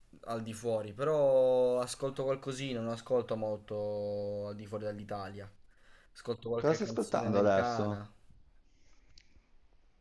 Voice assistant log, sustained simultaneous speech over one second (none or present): present